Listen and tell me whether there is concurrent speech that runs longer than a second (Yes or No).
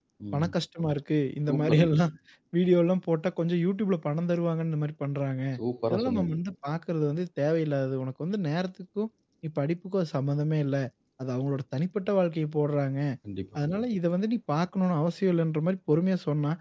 No